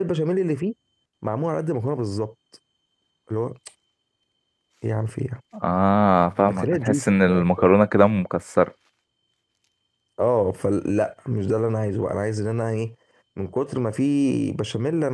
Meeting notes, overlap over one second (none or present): present